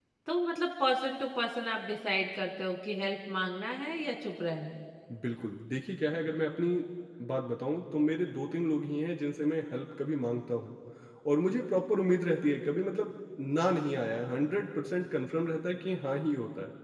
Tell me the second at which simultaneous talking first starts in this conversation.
none

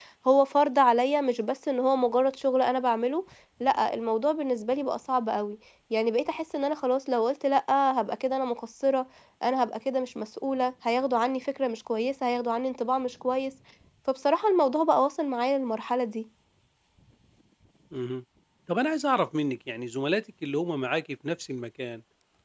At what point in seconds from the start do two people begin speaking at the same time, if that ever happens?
none

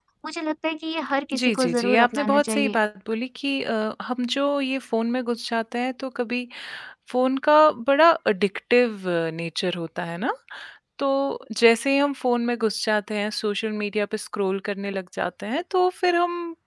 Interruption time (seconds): 1.3 s

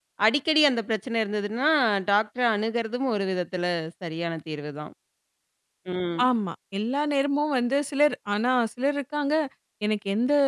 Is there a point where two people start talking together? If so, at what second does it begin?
none

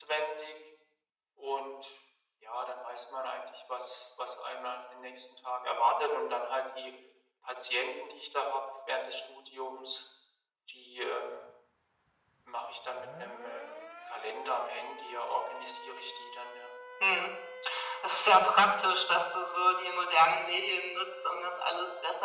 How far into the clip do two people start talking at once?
none

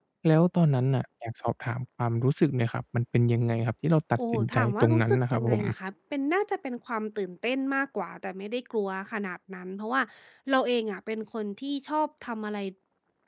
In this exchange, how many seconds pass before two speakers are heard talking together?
4.2 s

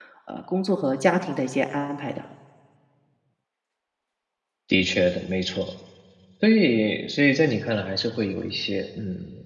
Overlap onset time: none

